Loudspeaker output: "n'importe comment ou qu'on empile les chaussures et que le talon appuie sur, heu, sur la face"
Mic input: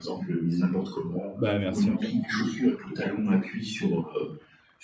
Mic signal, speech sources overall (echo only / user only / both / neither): both